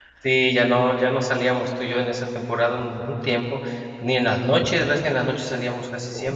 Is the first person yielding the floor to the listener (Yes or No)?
Yes